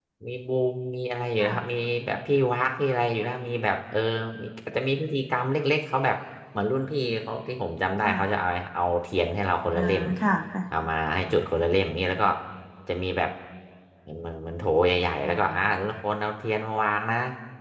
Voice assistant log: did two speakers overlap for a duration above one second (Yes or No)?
No